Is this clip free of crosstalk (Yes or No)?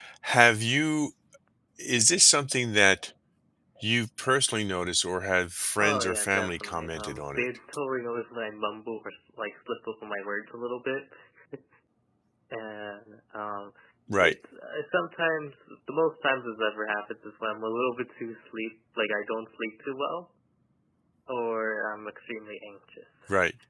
No